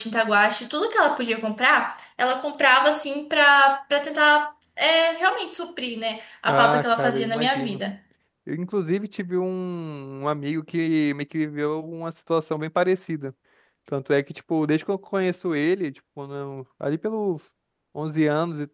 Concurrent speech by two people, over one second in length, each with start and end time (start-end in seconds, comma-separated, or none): 6.5-7.8